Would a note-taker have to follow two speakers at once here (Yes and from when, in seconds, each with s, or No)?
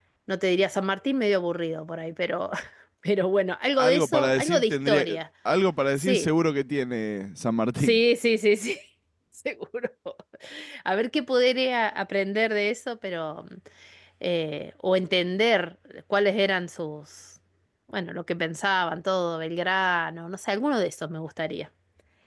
Yes, from 3.8 s